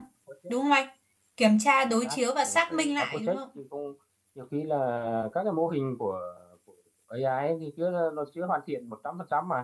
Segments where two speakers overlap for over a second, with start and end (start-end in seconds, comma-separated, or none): 1.8-3.4